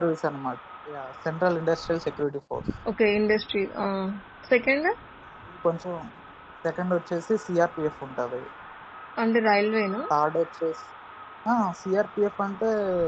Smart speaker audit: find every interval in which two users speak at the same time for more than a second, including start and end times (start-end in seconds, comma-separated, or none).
none